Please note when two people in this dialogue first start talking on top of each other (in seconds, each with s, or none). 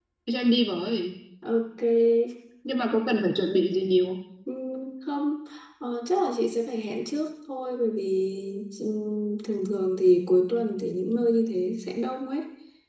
none